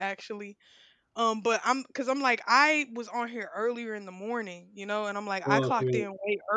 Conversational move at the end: listening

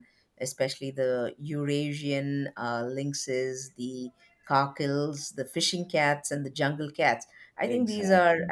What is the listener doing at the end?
listening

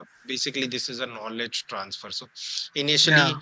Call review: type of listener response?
listening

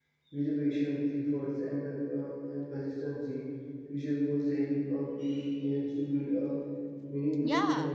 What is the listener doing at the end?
taking over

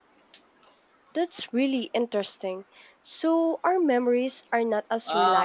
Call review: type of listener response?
taking over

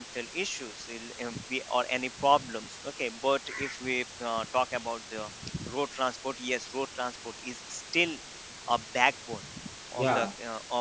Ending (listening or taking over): listening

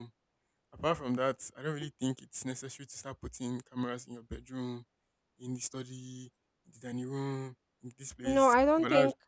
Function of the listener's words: taking over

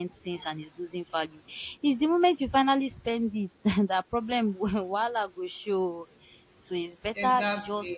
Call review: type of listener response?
listening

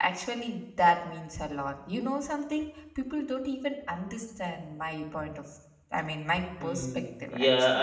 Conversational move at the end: taking over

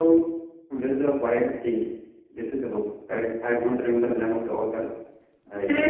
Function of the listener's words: taking over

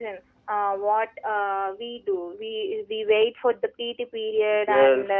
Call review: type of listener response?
taking over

